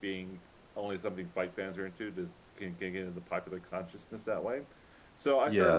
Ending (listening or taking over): listening